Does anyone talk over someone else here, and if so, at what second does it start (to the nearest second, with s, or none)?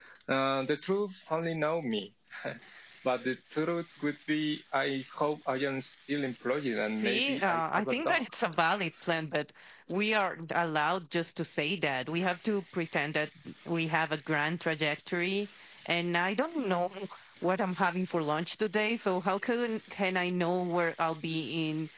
7 s